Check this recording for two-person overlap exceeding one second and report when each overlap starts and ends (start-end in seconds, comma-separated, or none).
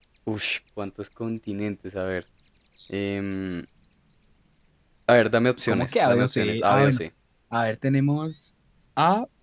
5.7-7.0